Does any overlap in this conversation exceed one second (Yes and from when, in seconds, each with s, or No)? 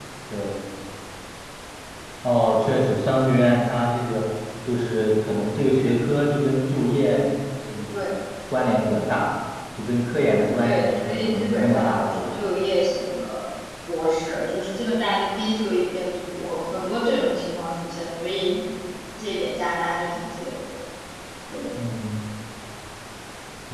Yes, from 10.6 s